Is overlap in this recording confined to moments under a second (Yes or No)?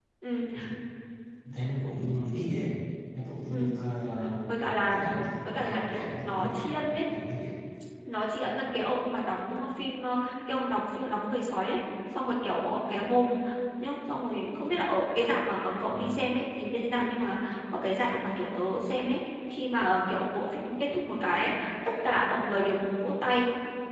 No